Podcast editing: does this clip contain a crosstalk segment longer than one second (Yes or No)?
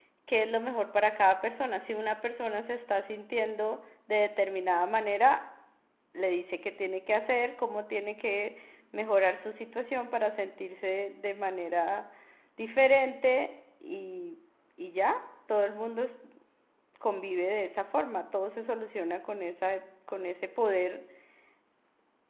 No